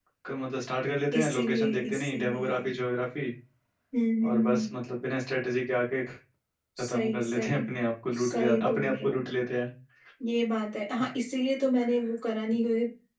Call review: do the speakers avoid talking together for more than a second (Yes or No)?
No